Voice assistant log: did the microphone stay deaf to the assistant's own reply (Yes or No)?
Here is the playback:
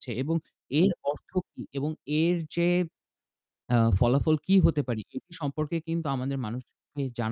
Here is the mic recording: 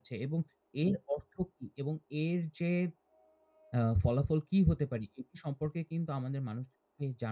No